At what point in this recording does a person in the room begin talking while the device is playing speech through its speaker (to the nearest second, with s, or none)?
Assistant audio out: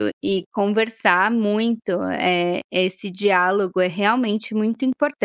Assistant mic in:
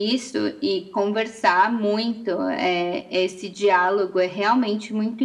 none